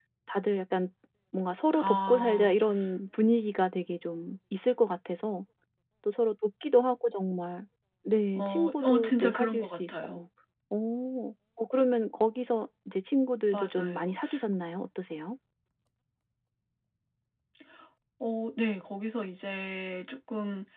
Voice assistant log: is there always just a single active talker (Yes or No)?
No